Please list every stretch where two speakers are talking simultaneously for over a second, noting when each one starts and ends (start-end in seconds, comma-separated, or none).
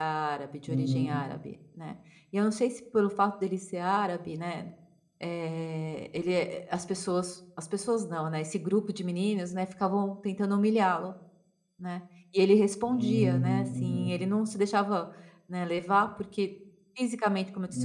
12.9-14.1